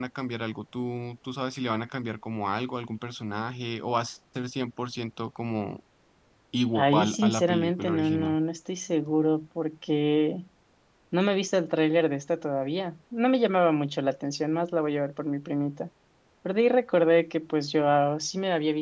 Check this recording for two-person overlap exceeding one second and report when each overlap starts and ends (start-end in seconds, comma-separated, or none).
6.8-8.4